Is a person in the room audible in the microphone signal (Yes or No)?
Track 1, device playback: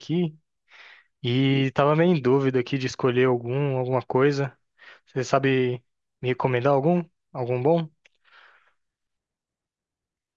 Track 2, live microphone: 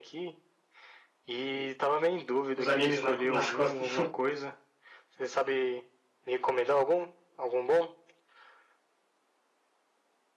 Yes